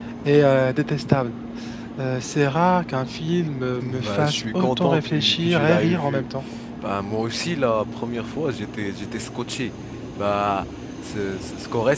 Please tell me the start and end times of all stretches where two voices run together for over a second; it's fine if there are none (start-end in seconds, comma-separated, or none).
3.8-6.2